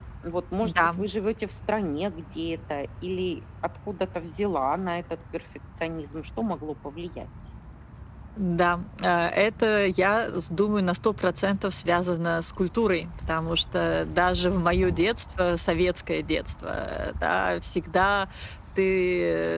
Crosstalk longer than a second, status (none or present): none